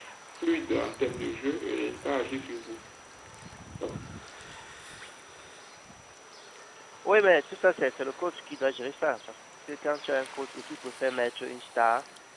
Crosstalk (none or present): none